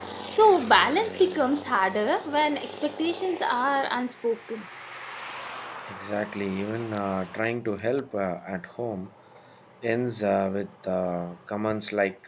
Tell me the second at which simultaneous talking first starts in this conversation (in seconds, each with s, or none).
none